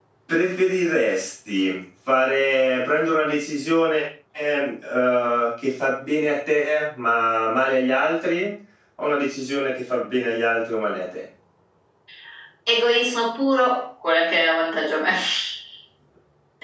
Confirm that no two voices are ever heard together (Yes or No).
Yes